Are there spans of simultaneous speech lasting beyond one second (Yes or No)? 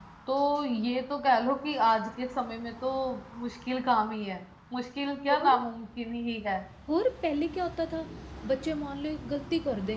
No